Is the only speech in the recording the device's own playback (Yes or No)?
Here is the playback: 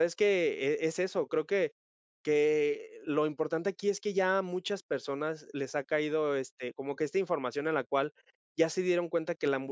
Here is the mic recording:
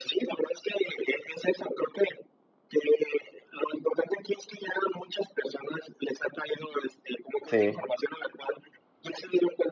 No